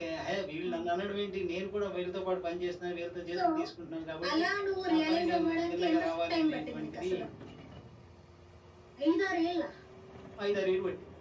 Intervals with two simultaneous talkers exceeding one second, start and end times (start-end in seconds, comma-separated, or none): 4.9-7.1